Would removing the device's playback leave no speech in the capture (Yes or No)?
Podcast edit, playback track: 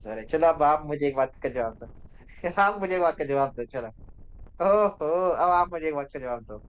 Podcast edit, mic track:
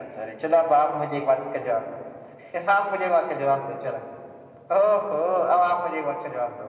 Yes